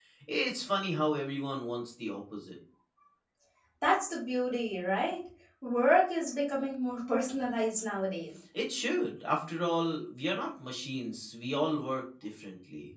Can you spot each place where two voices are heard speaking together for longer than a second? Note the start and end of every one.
none

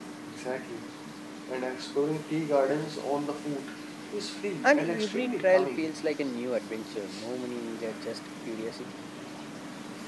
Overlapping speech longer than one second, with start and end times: 4.6-5.9

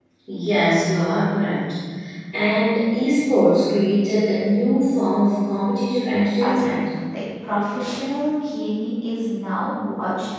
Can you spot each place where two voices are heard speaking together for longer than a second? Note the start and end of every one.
none

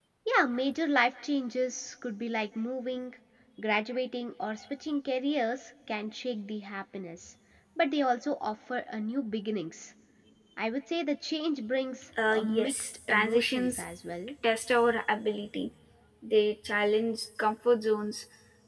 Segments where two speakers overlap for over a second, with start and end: 12.3-13.7

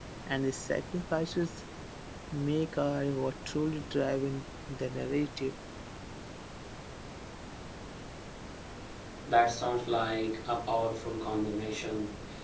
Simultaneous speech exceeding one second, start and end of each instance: none

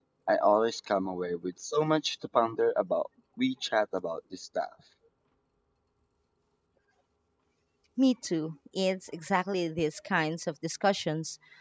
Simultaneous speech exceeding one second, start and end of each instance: none

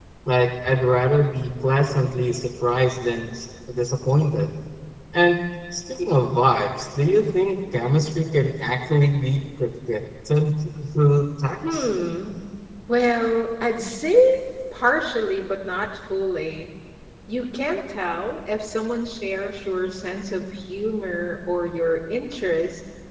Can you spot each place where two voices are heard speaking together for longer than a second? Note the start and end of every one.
none

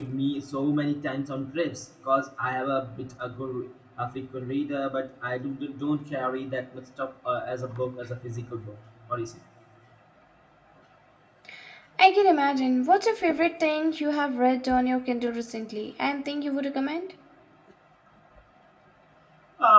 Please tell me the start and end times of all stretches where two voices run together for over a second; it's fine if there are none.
none

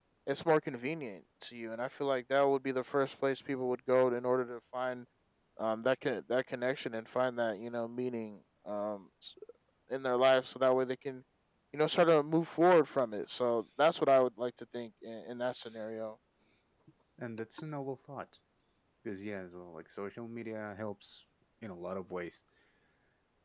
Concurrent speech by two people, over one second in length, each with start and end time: none

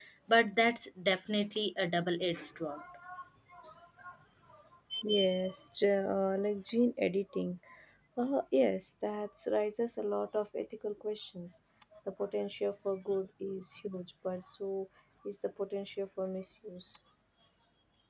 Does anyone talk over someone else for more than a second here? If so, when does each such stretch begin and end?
none

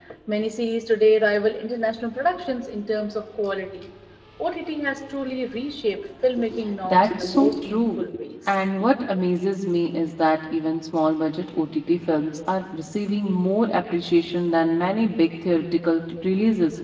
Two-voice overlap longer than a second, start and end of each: 6.8-8.1

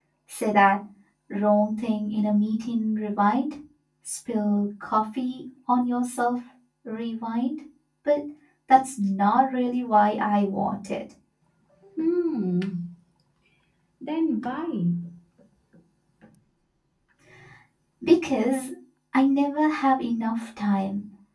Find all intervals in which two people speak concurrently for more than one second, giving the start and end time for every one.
none

